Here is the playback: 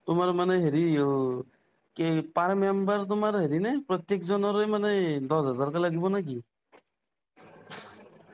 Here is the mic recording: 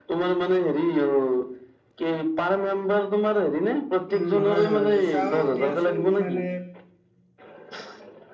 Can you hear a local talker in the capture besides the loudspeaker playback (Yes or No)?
Yes